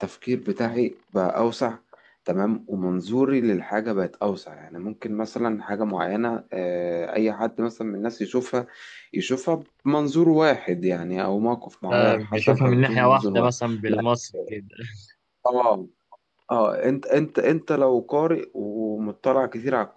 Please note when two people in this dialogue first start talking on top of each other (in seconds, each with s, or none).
11.9 s